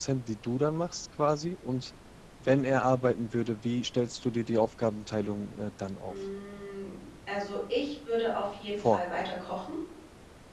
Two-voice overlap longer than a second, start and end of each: none

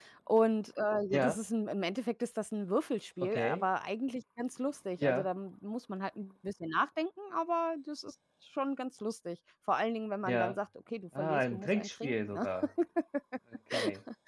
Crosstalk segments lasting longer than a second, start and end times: 11.2-12.5

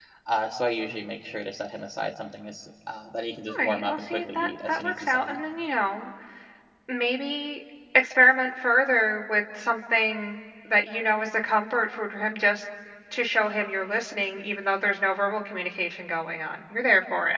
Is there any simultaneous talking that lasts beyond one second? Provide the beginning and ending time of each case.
3.6-5.4

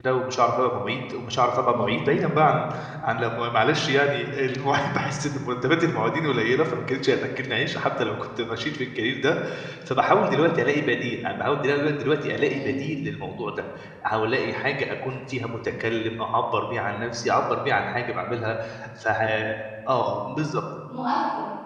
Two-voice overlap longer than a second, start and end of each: none

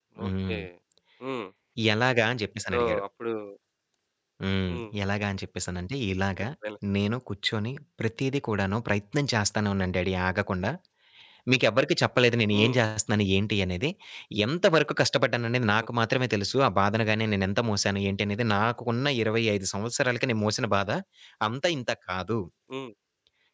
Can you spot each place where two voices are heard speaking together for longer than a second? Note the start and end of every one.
none

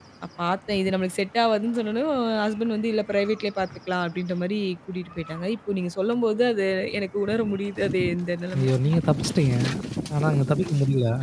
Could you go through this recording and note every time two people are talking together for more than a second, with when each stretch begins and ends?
none

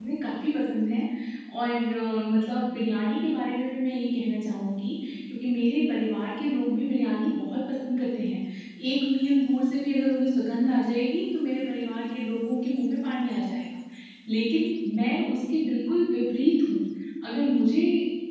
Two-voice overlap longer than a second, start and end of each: none

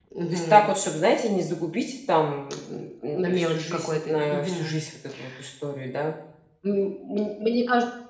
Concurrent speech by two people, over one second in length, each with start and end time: 2.7-4.8

